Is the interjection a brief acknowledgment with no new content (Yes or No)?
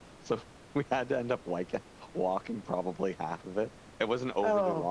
Yes